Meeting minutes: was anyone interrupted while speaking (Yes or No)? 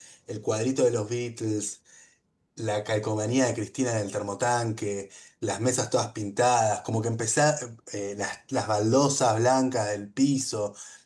No